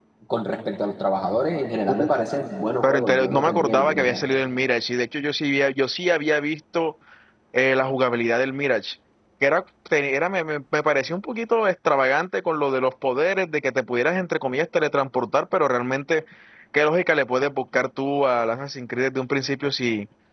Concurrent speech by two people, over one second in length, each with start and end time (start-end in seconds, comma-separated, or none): 2.8-4.2